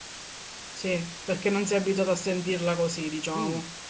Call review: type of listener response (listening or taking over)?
taking over